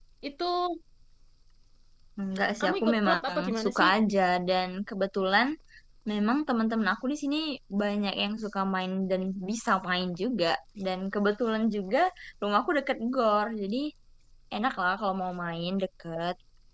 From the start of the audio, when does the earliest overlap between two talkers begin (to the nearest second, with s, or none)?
3 s